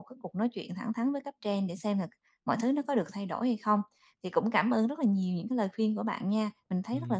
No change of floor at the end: No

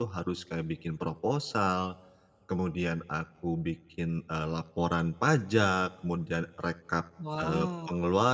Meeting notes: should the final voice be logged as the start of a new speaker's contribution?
No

